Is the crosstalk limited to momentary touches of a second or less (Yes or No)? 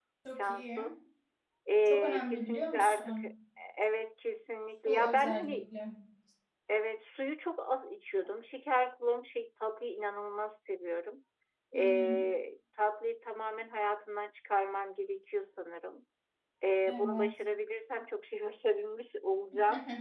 No